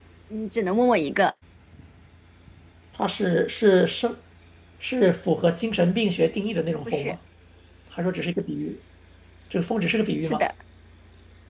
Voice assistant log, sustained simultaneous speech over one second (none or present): none